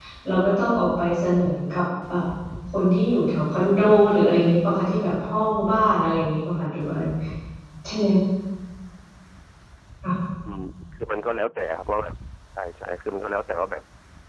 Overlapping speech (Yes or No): No